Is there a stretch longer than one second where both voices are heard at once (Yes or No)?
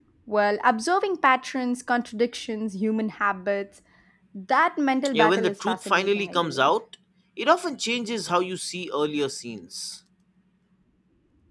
Yes